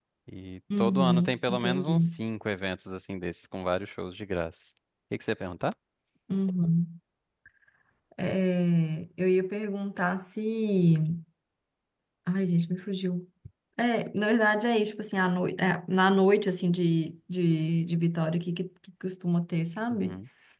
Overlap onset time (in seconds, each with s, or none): 0.8 s